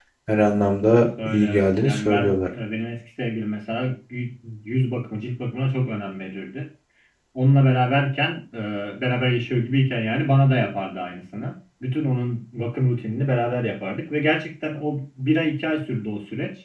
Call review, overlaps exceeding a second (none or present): present